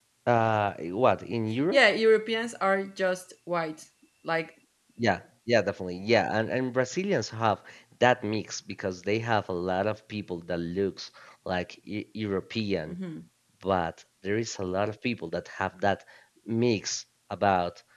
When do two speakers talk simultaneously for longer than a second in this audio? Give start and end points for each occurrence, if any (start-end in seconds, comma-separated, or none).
none